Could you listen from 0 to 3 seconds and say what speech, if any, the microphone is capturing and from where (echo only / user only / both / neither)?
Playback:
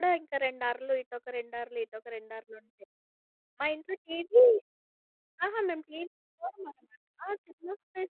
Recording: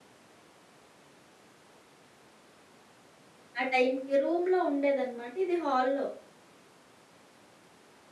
neither